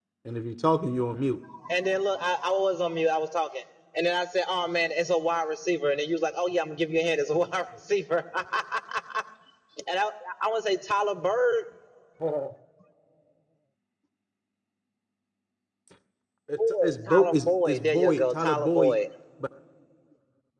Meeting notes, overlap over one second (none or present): present